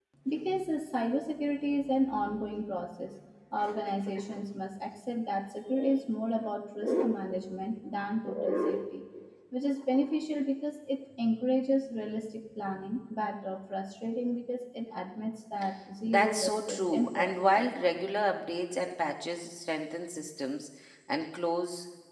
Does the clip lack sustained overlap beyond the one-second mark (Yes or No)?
No